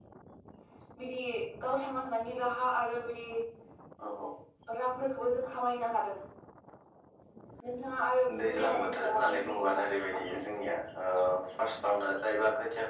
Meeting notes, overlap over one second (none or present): present